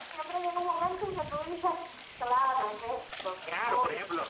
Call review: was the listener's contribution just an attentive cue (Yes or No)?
No